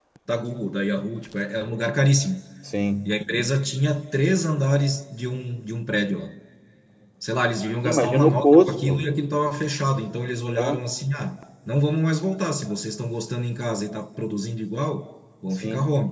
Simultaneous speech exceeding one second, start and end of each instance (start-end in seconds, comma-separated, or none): 7.8-9.1